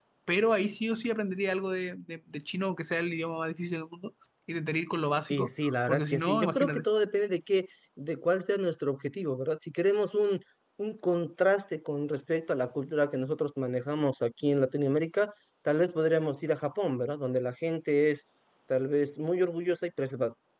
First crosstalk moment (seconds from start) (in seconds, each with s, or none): 5.3 s